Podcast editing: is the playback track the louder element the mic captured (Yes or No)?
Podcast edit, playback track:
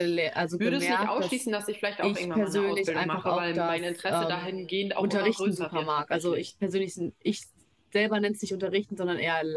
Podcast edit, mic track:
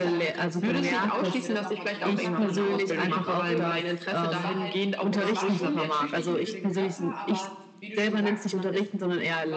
Yes